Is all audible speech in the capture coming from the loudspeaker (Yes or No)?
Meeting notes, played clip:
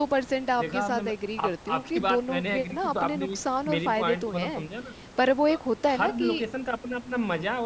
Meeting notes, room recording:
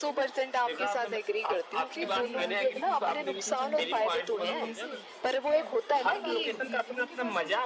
No